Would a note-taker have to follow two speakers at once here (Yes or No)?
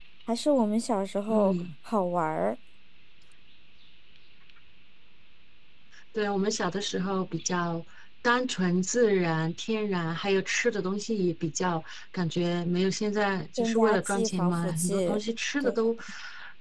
Yes